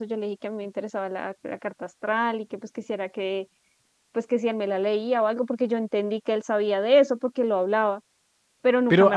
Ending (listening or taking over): taking over